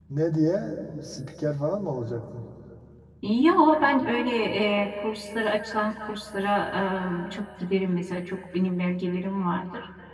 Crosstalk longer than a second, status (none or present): none